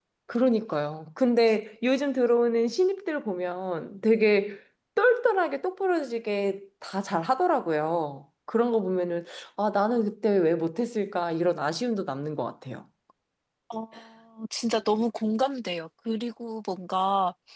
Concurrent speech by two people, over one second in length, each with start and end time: none

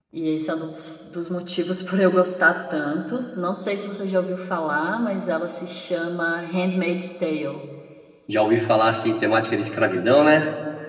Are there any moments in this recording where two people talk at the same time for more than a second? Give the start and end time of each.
none

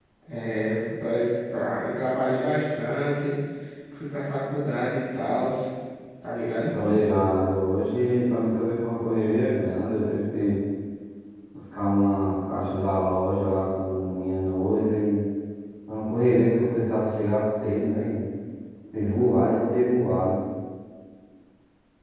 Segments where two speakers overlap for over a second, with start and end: none

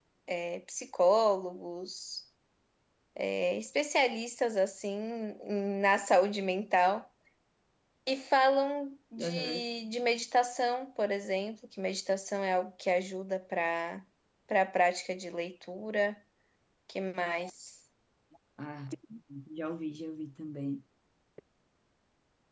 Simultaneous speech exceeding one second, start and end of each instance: none

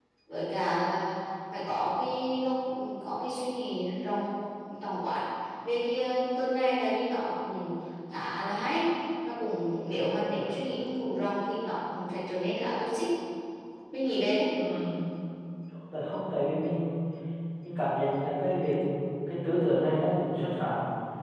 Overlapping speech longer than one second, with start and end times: none

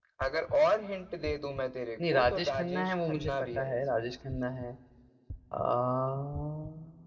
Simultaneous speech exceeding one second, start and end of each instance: 2.0-4.1

